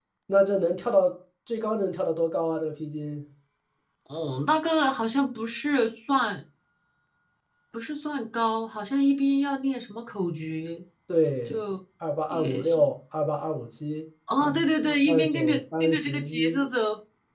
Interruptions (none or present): present